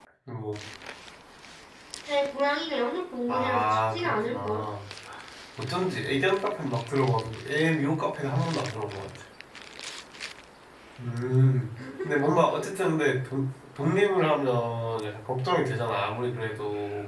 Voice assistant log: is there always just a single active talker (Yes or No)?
No